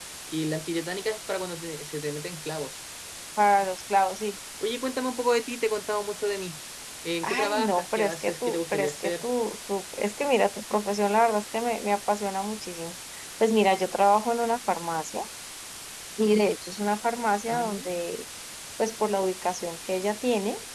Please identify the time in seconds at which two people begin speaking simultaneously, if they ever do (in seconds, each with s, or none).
7.2 s